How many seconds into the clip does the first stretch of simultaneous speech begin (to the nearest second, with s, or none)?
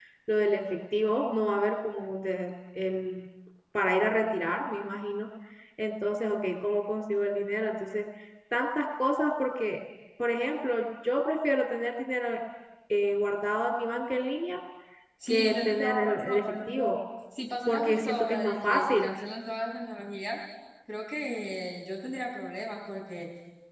15 s